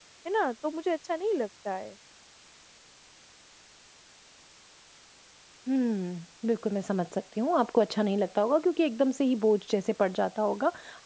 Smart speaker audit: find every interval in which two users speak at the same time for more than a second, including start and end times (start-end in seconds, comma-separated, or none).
none